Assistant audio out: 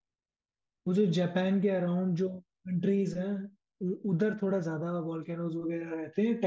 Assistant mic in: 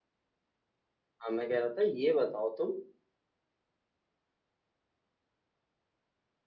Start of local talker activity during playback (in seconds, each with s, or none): 1.2 s